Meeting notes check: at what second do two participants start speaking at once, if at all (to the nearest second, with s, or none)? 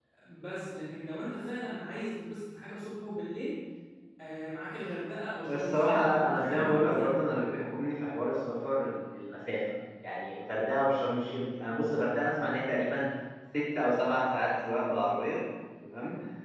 5 s